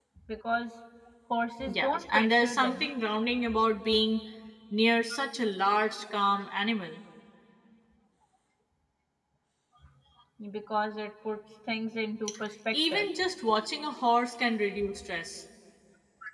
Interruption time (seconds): 1.7 s

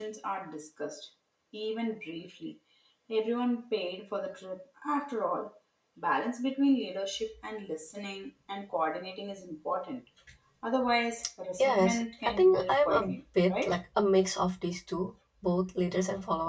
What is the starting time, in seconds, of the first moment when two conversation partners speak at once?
11.6 s

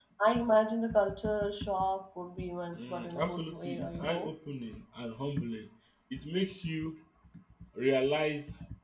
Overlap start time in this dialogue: 2.7 s

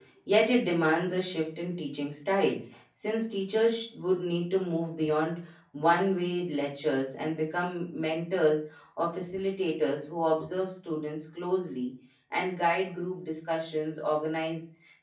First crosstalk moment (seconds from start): none

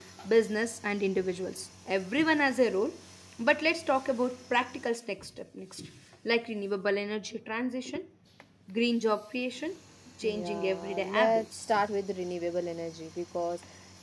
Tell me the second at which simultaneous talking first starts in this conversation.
10.2 s

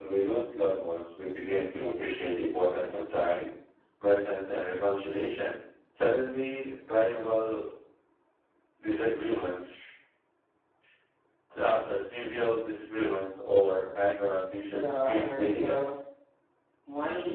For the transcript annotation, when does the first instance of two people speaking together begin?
14.7 s

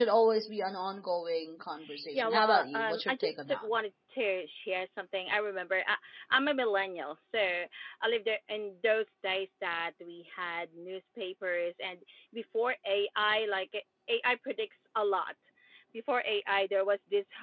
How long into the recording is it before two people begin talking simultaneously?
2.1 s

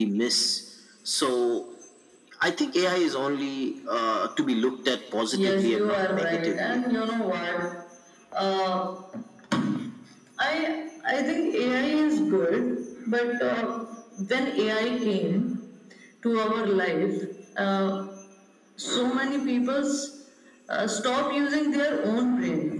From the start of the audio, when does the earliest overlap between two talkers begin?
5.3 s

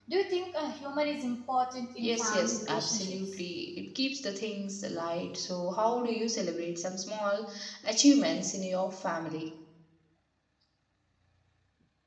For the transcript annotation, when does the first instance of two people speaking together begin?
2.0 s

